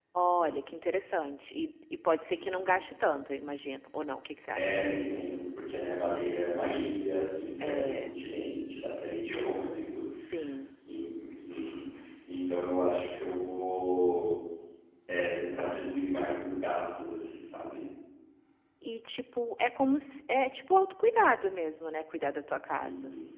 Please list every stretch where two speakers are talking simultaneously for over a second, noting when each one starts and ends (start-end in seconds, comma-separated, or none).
none